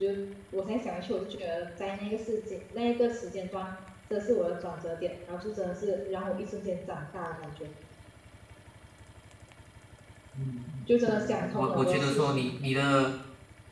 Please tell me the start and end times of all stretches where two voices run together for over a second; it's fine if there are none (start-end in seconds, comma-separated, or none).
11.1-12.5